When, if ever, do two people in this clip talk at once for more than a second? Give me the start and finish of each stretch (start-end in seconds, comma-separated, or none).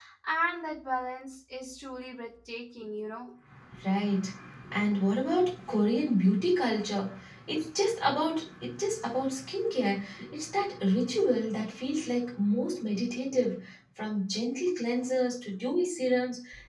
none